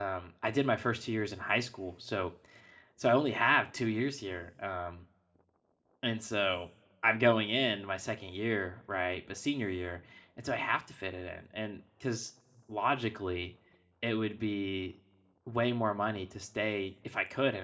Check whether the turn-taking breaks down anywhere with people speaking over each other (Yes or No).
No